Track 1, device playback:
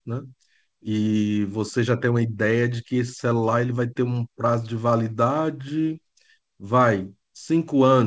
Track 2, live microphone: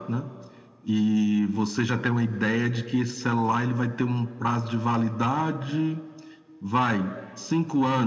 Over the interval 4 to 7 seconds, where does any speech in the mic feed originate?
echo only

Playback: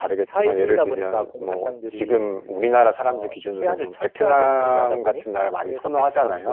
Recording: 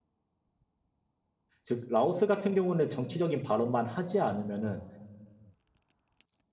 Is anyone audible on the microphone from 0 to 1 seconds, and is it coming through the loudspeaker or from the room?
neither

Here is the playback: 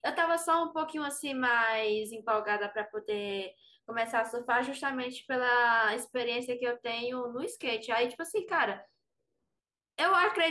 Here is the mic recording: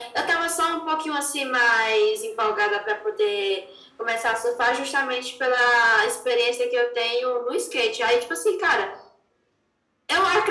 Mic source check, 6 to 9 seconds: echo only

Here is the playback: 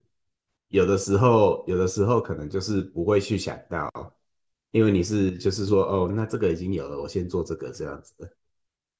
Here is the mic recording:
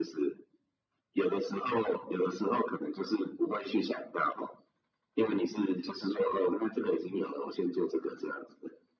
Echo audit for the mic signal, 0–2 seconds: echo only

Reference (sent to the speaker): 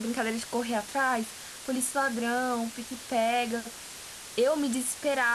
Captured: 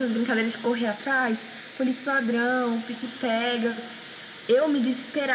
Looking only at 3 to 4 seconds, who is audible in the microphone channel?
echo only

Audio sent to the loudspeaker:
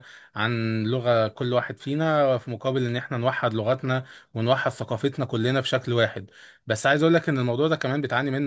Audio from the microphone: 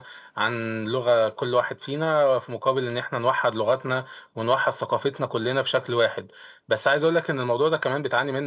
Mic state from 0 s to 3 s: echo only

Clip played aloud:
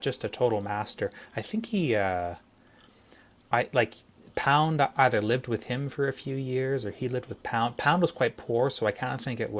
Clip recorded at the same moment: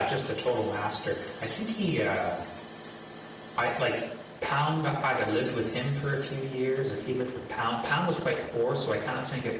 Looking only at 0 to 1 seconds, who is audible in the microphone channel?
echo only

